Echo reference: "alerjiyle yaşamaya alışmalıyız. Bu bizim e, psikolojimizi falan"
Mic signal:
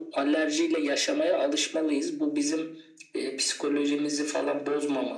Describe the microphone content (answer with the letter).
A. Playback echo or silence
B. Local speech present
A